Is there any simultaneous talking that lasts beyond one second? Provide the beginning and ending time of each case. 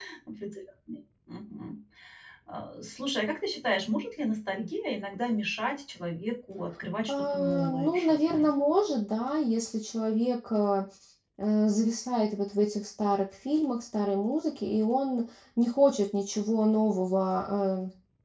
7.1-8.5

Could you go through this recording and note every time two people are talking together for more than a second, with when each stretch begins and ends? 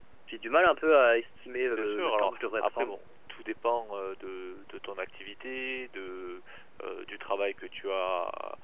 1.7-3.0

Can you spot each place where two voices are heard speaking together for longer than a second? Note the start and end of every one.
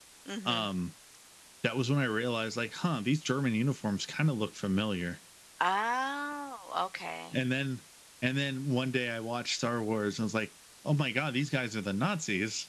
none

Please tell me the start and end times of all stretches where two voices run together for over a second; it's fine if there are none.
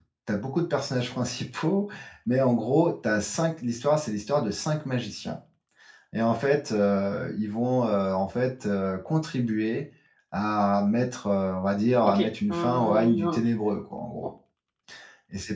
12.0-13.4

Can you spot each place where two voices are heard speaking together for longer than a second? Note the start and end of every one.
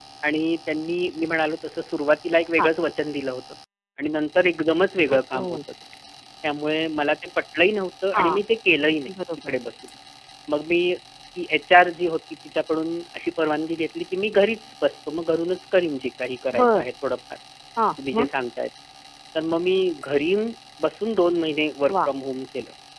none

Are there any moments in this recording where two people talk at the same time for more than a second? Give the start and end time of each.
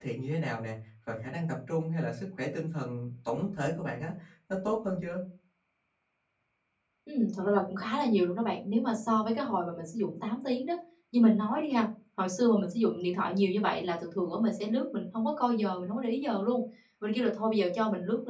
none

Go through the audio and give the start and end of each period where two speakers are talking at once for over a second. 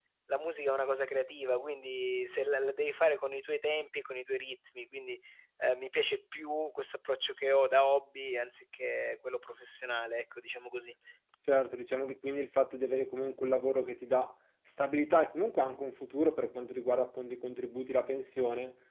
none

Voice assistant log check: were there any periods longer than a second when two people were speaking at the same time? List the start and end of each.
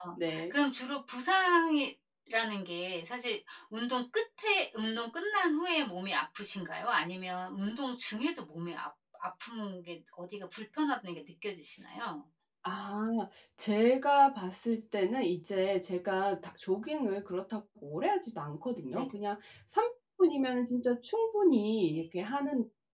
none

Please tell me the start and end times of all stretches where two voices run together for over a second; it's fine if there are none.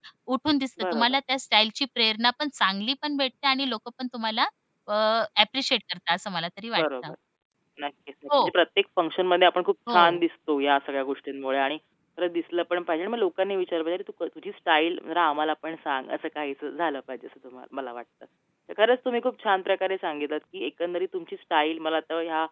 none

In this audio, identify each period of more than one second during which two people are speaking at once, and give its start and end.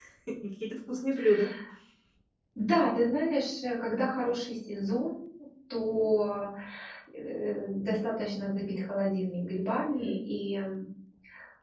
none

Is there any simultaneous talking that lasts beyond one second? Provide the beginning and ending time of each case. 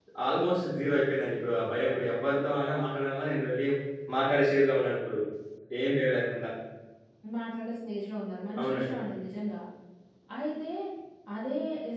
none

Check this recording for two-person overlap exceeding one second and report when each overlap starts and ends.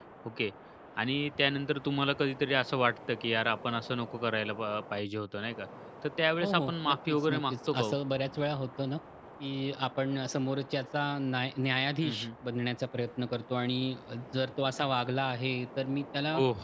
6.4-8.0

